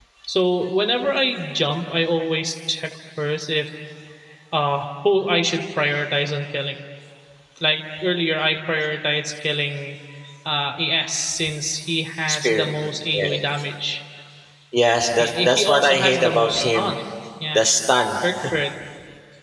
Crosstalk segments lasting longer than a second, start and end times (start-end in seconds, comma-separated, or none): 15.2-16.9